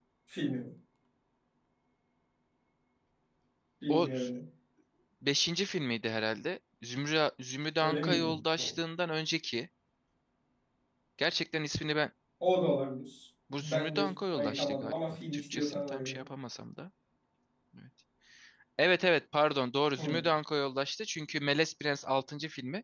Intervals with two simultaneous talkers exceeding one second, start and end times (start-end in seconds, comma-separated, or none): 13.6-16.2